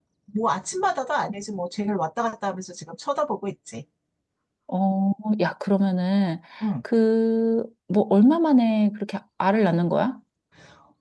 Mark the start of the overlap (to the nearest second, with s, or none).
none